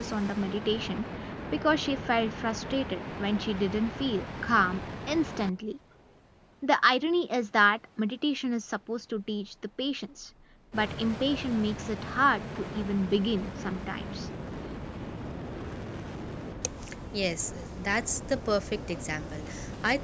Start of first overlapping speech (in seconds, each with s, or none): none